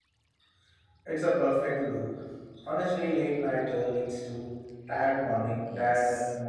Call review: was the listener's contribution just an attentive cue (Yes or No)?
No